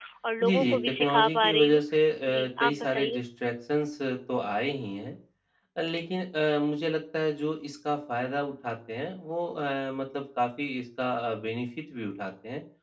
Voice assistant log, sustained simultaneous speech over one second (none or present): present